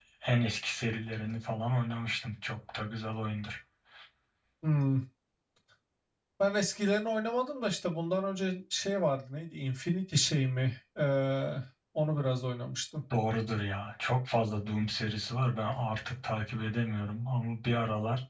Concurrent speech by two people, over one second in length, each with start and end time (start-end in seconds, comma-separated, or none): none